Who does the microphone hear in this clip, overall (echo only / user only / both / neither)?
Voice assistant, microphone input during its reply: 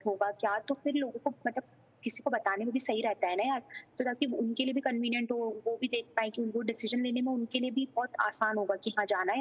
echo only